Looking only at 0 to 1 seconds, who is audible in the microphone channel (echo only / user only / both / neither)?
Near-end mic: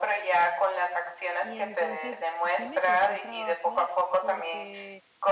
echo only